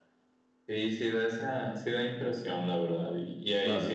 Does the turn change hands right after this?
No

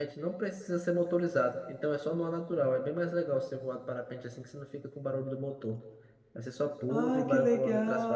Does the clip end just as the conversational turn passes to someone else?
Yes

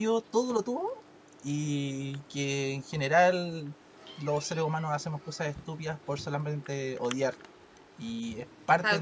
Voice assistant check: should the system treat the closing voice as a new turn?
No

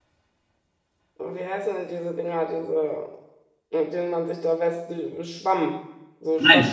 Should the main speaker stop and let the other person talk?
Yes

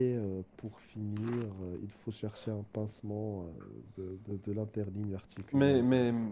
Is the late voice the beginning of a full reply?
Yes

